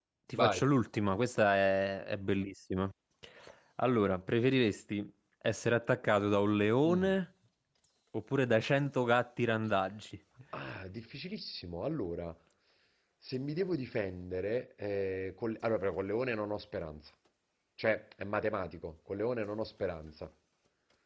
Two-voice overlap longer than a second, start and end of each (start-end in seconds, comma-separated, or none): none